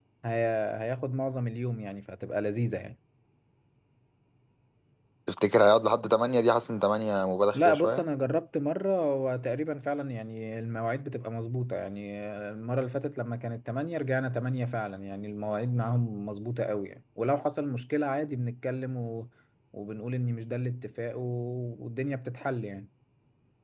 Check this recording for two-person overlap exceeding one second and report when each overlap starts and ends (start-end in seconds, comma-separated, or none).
none